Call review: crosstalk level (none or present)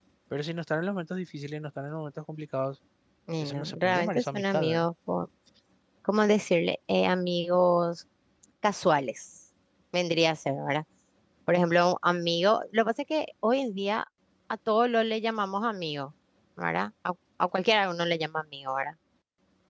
present